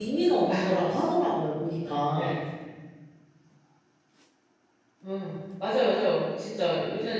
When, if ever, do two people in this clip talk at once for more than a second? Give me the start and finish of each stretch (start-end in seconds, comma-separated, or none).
none